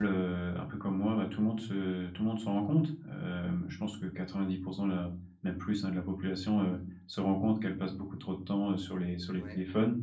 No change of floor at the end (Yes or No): Yes